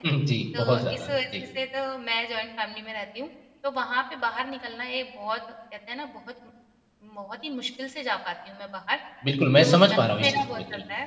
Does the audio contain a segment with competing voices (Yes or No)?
Yes